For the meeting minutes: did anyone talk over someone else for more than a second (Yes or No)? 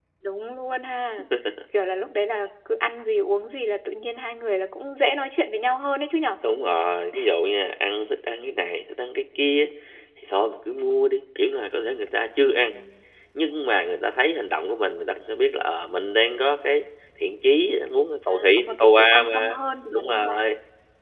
Yes